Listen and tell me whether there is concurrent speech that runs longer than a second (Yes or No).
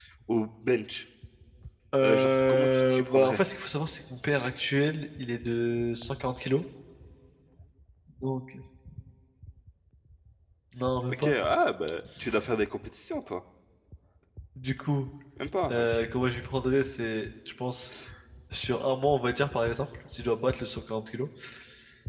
Yes